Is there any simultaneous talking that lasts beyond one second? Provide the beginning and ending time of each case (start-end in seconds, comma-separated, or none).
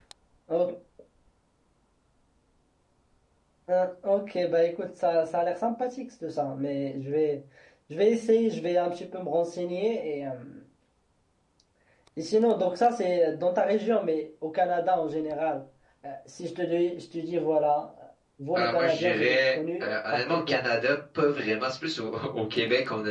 18.6-20.6